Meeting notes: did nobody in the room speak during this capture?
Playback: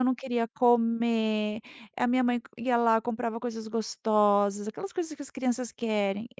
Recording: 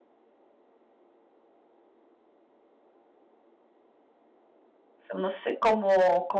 No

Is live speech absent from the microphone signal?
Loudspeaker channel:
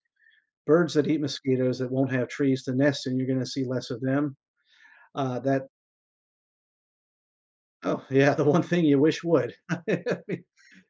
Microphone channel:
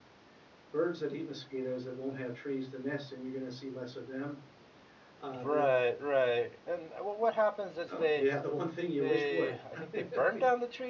No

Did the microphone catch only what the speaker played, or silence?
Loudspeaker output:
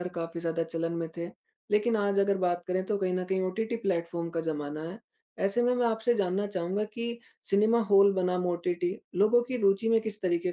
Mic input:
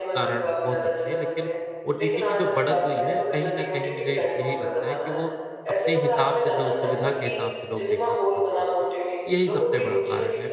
No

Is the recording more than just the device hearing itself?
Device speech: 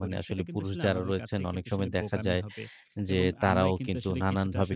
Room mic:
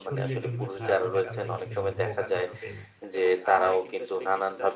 Yes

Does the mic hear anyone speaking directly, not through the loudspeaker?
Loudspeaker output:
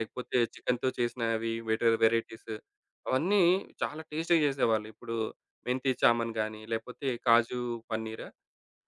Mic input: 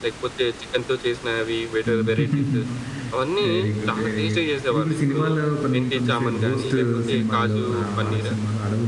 Yes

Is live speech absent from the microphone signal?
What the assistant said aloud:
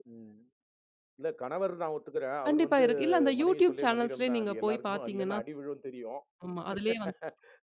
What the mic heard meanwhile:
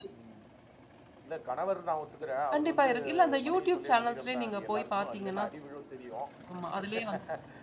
Yes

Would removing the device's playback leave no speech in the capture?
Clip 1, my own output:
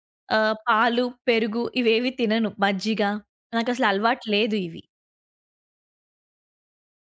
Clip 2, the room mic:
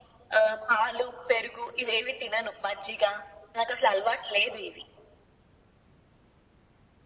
Yes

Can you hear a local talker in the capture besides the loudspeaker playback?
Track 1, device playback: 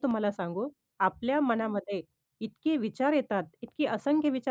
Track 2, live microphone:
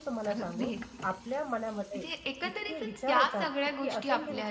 Yes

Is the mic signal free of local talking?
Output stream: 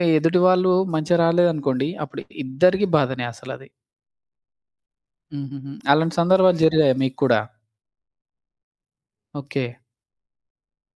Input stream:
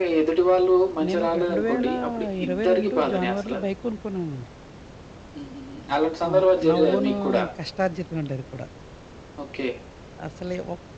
No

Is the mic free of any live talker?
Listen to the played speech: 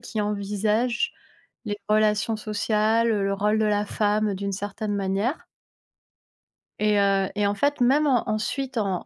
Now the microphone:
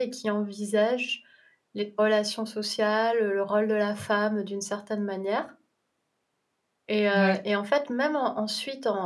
No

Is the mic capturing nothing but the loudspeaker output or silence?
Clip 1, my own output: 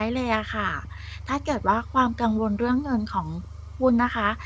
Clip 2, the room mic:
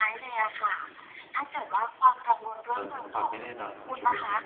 No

